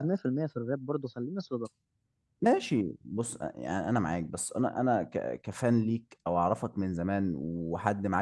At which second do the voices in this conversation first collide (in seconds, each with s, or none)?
none